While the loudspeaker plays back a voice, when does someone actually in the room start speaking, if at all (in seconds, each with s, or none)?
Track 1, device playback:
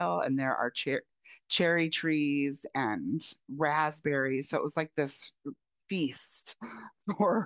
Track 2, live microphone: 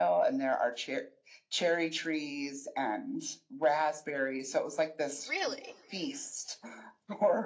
5.1 s